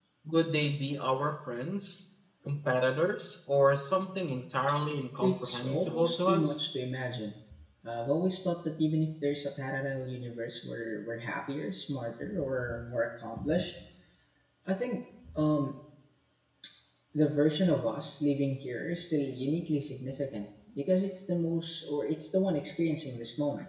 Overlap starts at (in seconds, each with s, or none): 5.2 s